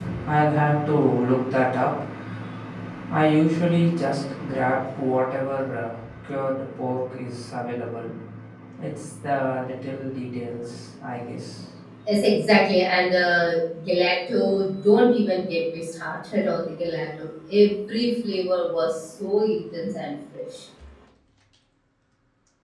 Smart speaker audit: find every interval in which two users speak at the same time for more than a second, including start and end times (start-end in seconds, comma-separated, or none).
none